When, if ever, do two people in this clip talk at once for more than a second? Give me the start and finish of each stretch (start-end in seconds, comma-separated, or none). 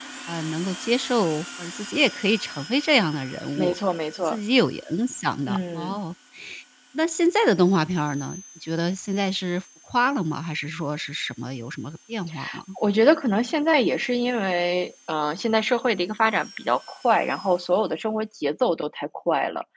none